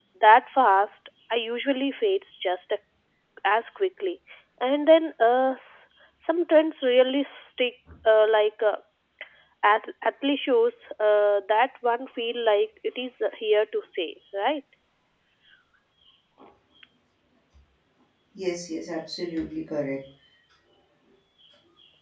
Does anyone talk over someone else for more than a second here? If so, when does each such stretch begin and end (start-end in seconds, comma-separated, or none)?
none